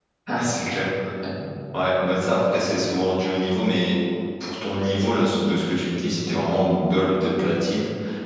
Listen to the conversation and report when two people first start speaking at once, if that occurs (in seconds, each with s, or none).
none